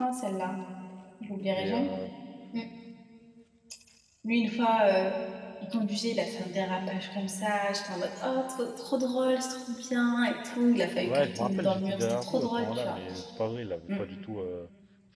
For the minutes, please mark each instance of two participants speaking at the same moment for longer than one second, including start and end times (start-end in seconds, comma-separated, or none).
11.0-13.0